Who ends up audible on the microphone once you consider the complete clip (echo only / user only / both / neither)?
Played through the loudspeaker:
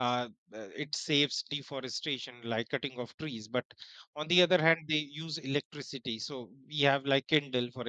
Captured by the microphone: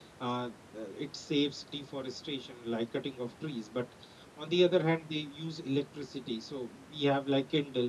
echo only